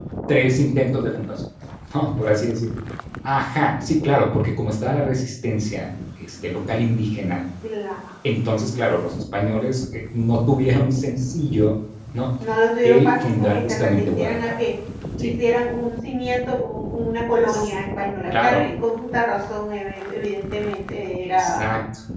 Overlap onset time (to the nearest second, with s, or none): 13 s